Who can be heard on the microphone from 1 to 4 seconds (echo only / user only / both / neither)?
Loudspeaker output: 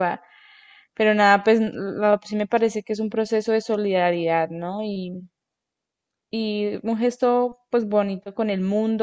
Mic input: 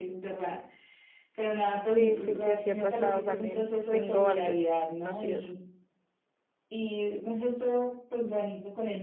both